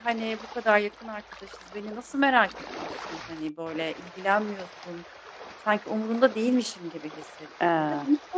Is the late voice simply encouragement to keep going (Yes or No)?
Yes